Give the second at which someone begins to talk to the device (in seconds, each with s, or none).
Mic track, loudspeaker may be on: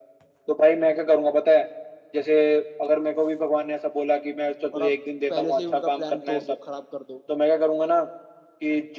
4.7 s